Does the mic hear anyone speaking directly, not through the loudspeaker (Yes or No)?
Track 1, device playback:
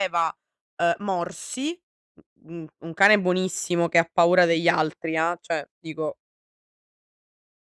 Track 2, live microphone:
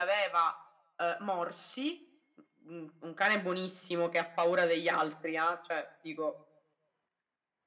No